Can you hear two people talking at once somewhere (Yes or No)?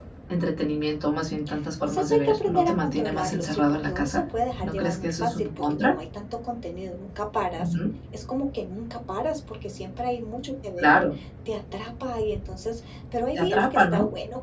Yes